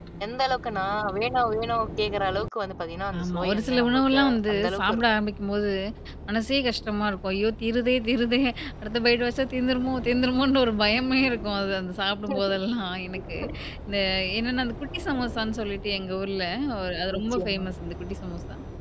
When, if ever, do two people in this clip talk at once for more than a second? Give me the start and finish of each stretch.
3.2-5.0

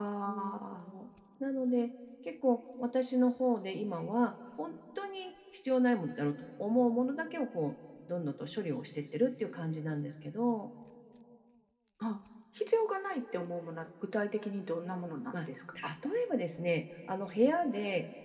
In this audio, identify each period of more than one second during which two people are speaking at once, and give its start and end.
none

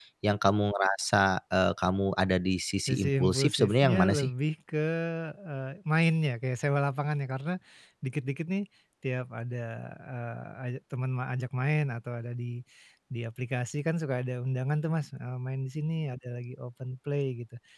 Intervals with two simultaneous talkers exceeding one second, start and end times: 2.9-4.3

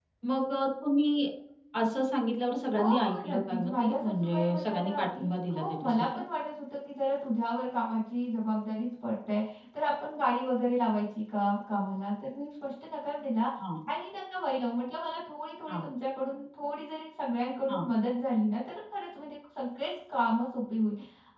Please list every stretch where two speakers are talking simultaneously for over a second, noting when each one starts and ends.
2.8-6.0

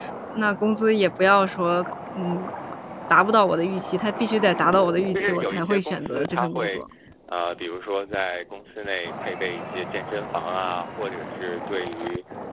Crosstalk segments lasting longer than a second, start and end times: 5.1-6.8

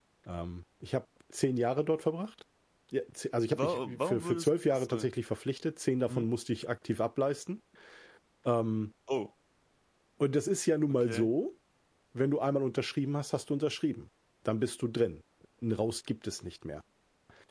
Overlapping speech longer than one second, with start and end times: 3.5-5.1

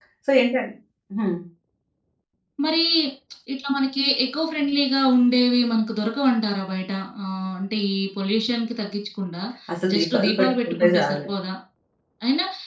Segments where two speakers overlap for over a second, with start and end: 9.9-11.2

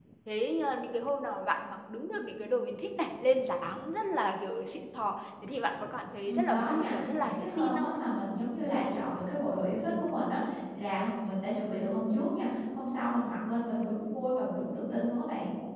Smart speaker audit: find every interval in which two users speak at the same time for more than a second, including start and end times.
6.3-7.7

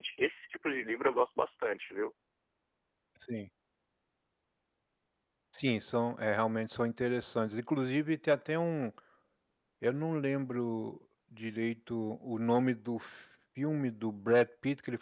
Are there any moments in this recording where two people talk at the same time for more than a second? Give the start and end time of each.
none

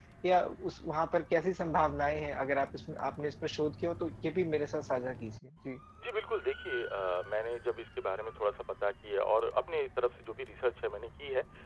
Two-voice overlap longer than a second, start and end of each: none

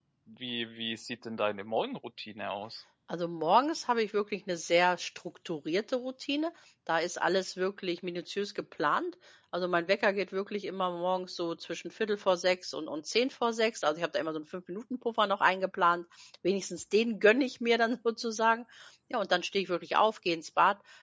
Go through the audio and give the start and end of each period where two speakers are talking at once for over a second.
none

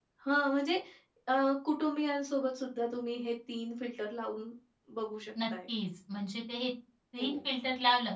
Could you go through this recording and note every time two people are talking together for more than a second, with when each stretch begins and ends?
none

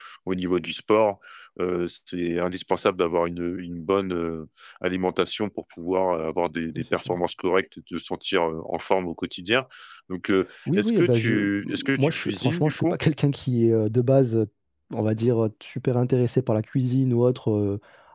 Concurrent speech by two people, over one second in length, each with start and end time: 10.7-12.9

